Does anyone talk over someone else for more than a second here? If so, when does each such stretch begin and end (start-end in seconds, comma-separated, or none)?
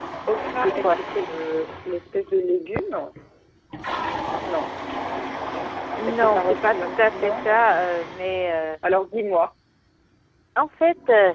6.0-7.5